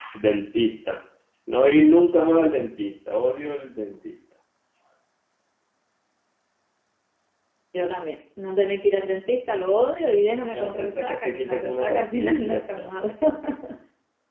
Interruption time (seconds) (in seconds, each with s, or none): 10.5 s